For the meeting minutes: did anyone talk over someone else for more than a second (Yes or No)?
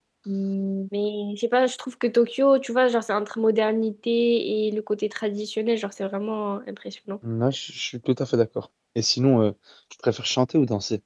No